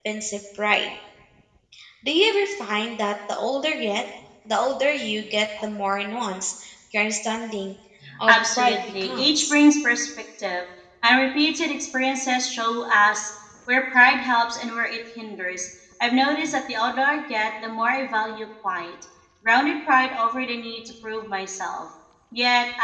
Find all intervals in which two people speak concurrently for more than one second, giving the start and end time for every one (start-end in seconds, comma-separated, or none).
8.3-9.5